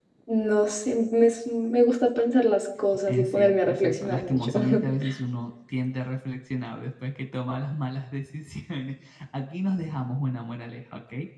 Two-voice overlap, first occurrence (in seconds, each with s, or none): 3.1 s